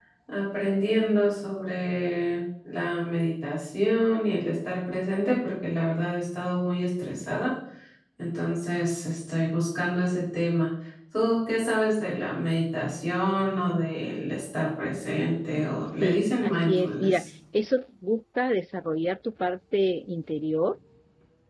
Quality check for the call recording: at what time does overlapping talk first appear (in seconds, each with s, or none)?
16.0 s